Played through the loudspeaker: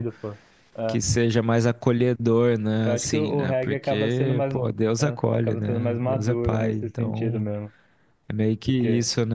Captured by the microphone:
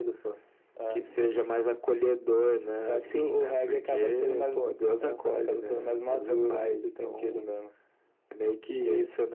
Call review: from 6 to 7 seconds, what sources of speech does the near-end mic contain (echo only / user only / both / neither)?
echo only